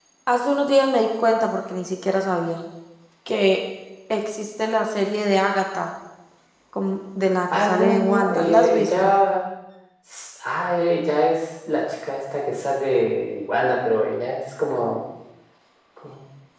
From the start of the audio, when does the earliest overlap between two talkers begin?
8 s

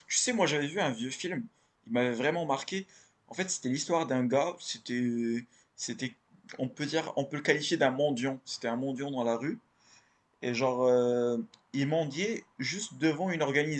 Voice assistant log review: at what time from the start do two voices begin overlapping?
none

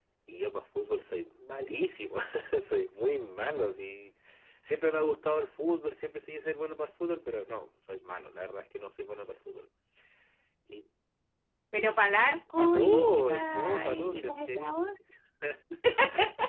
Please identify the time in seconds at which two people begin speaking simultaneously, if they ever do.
13 s

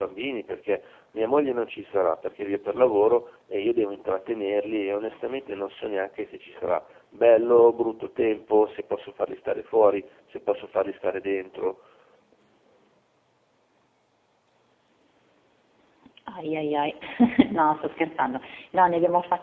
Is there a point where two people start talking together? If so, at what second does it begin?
none

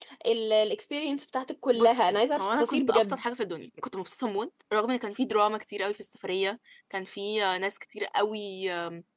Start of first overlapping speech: 2 s

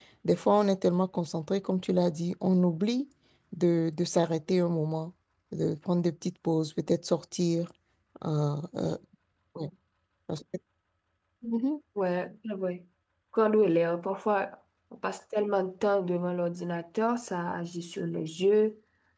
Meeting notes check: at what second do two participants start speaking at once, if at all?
none

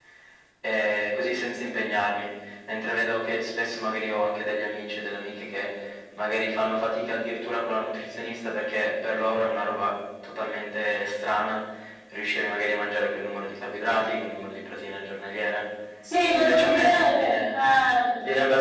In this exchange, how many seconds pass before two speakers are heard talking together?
16 s

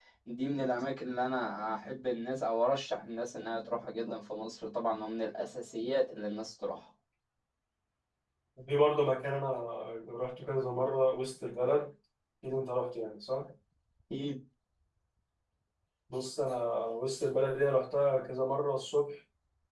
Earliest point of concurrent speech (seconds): none

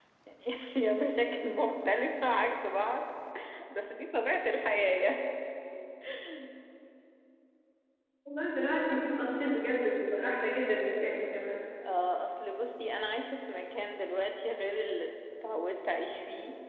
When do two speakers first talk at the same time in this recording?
none

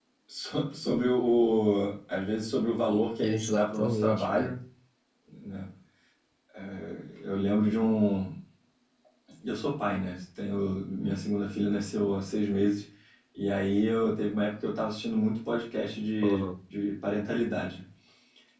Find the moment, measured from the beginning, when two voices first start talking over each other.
3 s

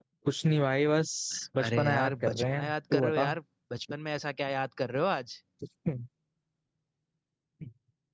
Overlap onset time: 2 s

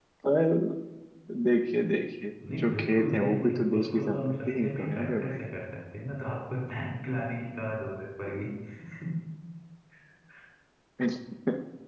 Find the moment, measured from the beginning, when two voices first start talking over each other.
2 s

